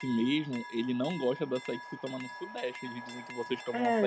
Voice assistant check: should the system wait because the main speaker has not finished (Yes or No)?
No